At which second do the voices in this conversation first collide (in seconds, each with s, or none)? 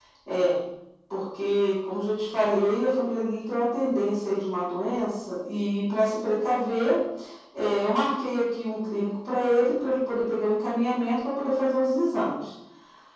none